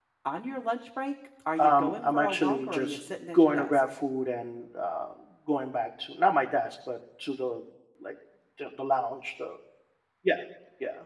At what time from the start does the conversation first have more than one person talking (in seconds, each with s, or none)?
1.5 s